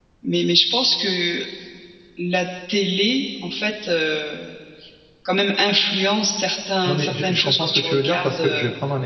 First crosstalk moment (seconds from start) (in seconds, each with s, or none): 6.8 s